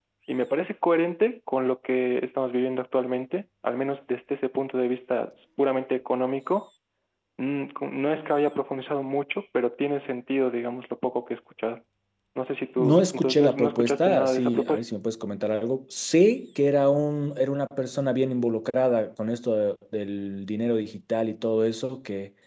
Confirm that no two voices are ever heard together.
No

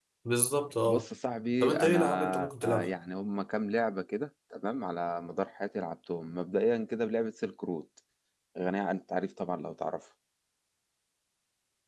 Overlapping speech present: Yes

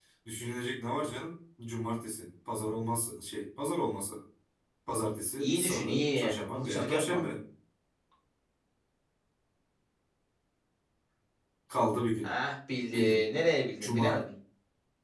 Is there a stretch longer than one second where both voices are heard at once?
Yes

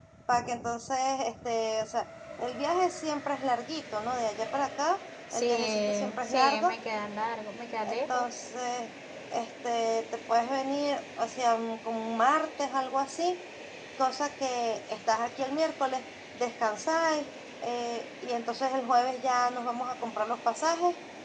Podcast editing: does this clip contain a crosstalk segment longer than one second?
Yes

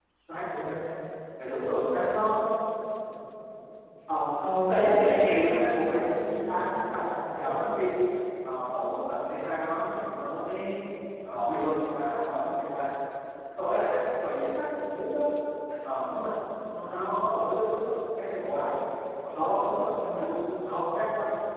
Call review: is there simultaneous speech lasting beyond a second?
Yes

